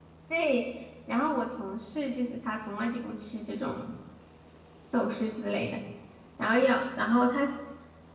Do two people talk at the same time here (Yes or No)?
No